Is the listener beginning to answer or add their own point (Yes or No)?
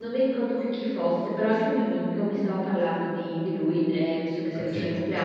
No